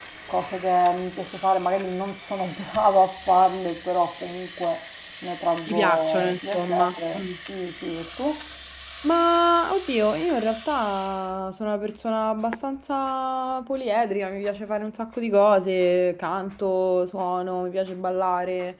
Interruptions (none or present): present